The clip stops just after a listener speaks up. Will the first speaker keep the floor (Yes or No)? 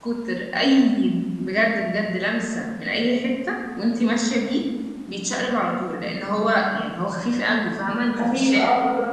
No